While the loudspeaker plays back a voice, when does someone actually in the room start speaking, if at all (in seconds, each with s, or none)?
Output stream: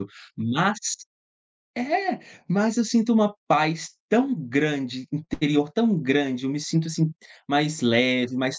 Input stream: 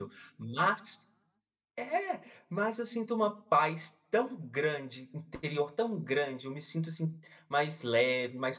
none